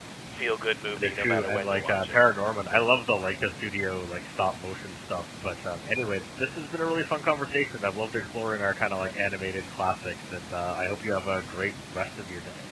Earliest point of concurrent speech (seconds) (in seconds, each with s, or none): 1.0 s